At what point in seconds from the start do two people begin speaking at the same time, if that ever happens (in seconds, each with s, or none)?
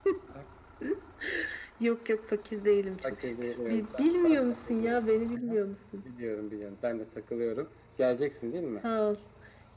3.0 s